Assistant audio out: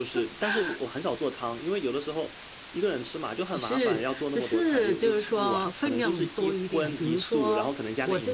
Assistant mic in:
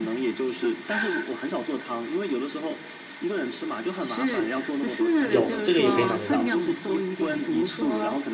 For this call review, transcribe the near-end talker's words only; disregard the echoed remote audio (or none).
有这个也可以买得到，